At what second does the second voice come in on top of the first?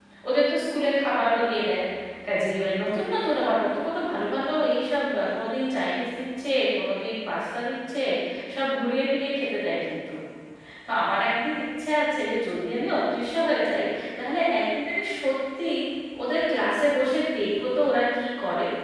none

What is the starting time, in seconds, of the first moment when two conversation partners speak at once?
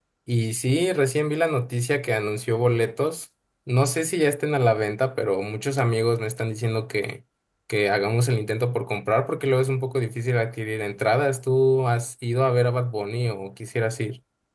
none

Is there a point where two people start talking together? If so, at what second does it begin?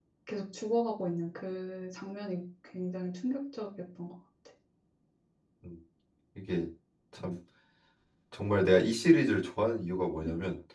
none

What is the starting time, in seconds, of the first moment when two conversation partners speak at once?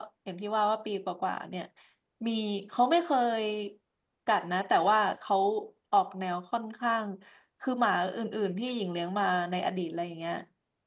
none

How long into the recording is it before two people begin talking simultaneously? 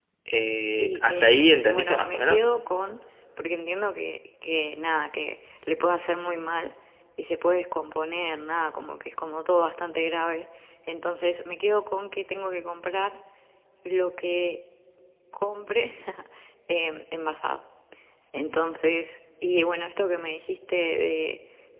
1 s

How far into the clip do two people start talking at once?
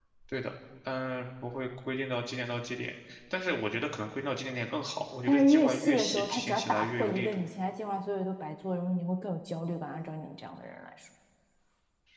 5 s

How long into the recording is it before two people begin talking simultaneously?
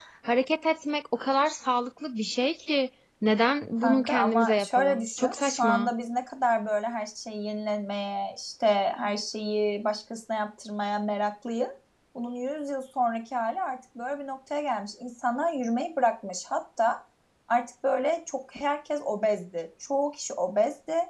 4 s

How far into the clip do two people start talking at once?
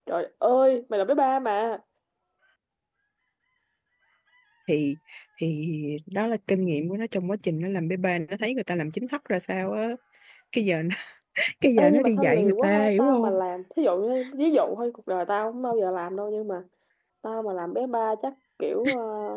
12 s

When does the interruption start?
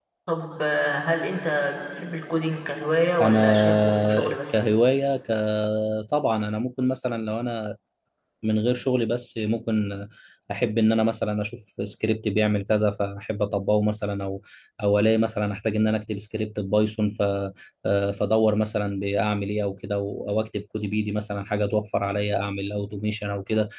3 s

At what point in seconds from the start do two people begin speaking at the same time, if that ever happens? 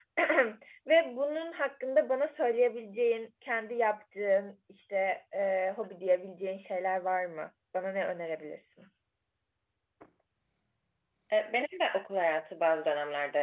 none

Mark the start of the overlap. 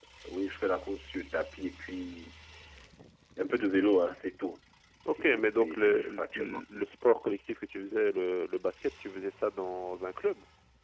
5 s

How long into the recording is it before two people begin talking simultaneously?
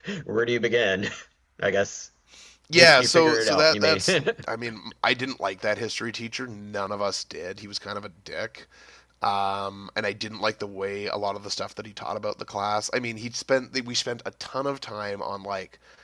3 s

